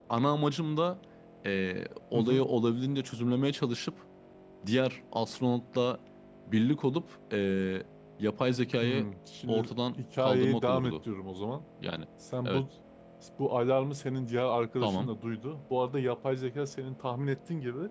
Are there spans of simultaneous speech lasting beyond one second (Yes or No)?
Yes